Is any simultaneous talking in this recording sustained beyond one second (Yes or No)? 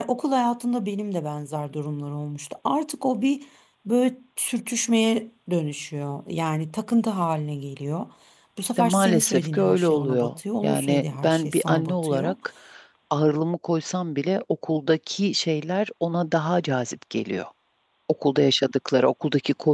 Yes